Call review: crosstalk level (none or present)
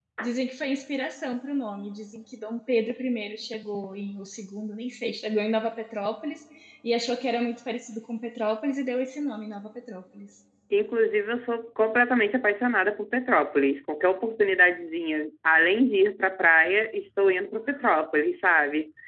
none